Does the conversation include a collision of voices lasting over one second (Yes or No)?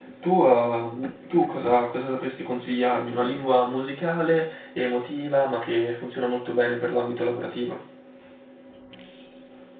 No